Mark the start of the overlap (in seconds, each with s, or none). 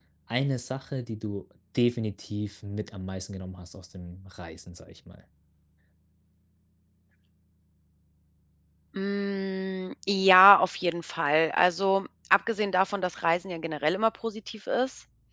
none